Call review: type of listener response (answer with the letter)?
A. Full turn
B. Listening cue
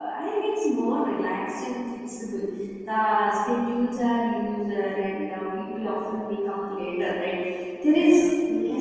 B